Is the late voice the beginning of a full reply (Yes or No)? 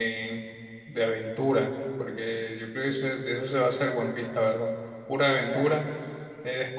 No